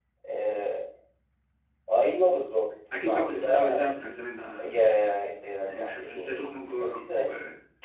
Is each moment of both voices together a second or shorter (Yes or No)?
No